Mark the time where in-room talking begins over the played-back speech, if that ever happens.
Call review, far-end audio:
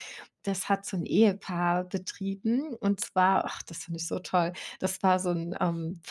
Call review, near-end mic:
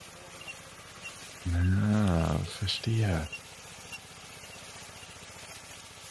1.4 s

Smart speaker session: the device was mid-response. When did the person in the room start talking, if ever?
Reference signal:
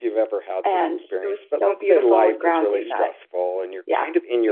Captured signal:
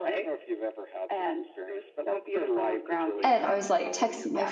3.2 s

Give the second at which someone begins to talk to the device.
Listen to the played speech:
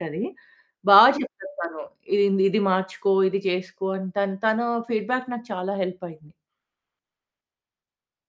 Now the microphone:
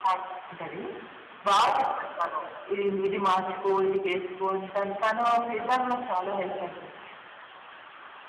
5.6 s

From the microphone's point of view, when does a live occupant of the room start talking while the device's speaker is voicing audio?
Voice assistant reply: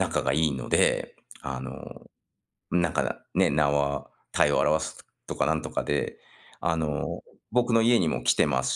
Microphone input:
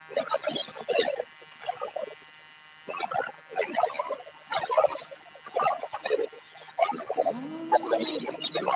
7.1 s

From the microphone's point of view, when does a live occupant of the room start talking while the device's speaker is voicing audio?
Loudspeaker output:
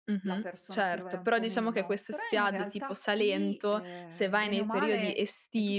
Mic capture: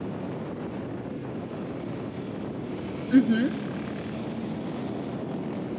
3.1 s

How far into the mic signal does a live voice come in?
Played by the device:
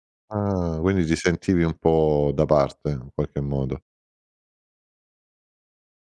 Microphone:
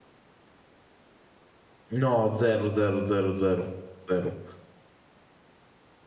1.9 s

